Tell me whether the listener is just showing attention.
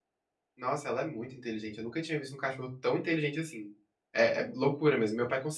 Yes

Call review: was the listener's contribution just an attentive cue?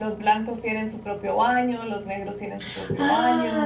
No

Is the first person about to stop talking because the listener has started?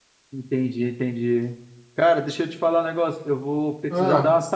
No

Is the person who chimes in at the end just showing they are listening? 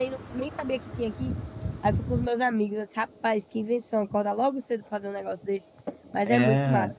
No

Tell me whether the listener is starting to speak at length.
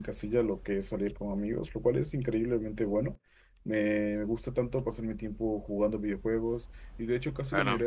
No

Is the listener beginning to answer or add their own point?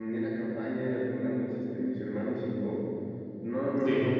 No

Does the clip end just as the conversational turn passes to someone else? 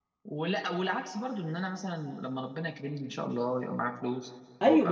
No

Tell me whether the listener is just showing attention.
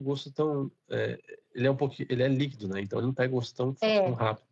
Yes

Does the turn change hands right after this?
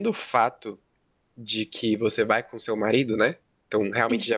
No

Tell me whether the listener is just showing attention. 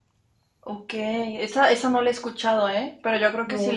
Yes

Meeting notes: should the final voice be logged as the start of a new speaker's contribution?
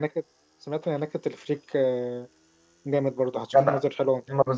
Yes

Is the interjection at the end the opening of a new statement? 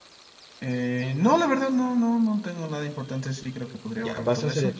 Yes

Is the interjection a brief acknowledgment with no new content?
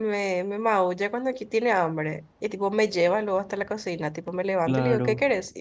Yes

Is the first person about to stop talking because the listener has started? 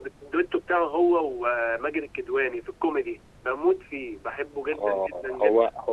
Yes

